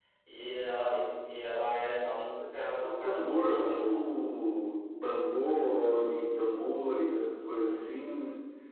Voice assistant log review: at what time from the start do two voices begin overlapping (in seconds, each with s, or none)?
2.8 s